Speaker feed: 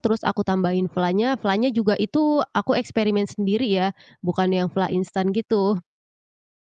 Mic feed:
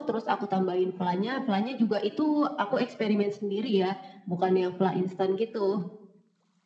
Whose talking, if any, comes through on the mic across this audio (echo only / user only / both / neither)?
echo only